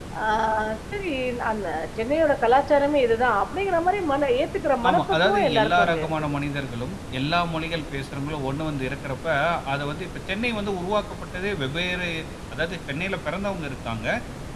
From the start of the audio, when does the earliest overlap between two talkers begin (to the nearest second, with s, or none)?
5 s